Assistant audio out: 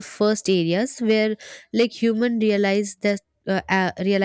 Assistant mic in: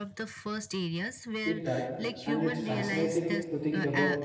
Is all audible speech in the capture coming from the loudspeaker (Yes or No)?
No